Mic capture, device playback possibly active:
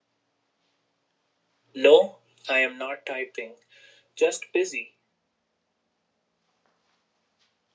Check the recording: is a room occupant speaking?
Yes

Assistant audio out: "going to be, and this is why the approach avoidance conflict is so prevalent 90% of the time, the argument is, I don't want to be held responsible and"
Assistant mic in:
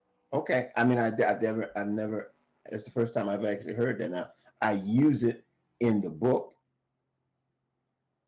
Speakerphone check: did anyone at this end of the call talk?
Yes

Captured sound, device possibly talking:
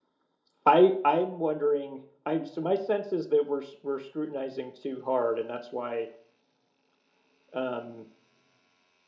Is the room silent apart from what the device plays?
No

